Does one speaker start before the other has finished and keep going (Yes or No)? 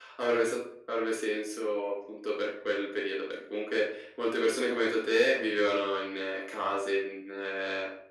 No